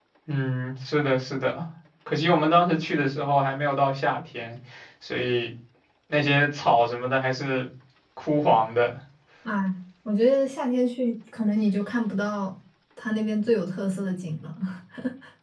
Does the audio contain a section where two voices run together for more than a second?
No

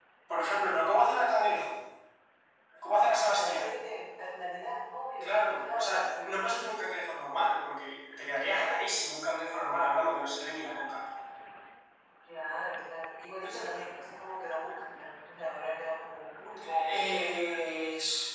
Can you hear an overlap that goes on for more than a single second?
Yes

